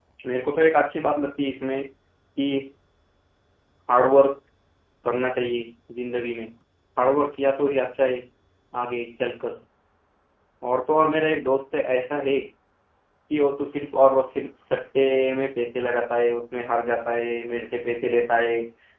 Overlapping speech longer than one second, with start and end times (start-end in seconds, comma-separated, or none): none